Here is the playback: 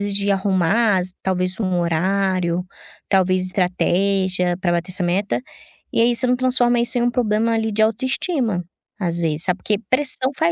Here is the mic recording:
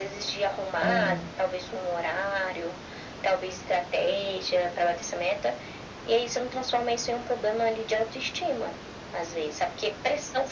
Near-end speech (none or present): present